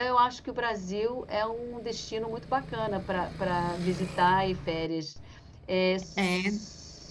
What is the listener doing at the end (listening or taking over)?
listening